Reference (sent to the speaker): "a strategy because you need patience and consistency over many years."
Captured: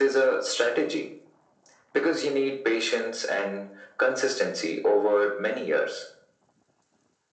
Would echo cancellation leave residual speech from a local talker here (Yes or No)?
No